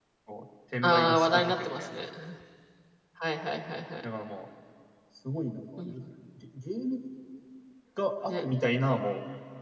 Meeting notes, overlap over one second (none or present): present